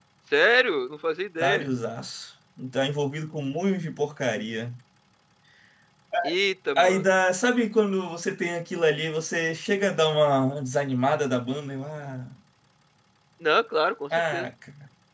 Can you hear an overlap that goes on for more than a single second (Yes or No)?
No